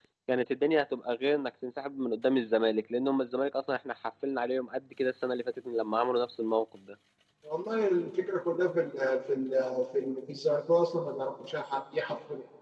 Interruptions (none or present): none